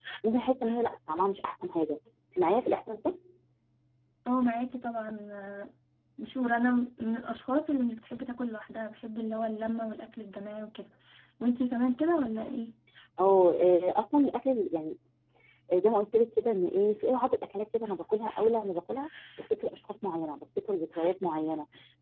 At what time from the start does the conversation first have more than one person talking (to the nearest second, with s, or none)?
none